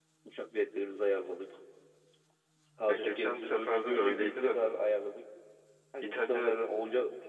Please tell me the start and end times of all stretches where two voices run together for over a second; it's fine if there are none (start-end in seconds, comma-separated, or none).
2.9-4.6